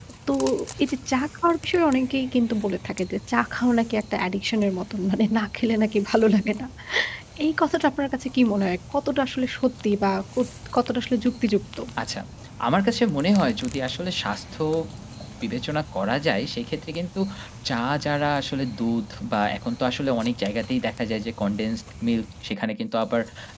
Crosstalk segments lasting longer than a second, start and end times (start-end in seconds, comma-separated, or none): none